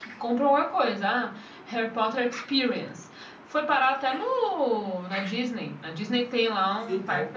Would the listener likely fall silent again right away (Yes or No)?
No